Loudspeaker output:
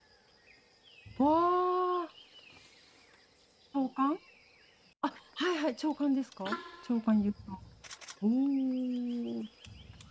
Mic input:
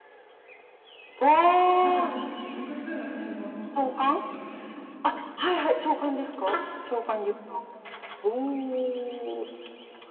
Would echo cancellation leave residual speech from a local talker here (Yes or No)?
Yes